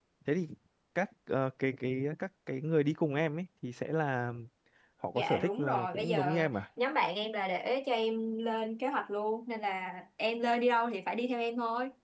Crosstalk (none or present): present